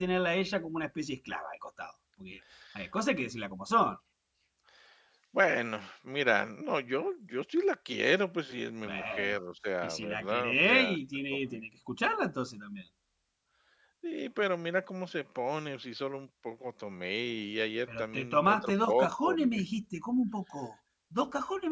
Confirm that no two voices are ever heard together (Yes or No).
No